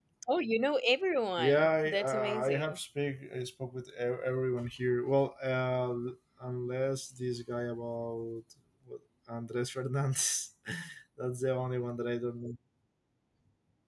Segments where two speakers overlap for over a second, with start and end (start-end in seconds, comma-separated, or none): 1.4-2.8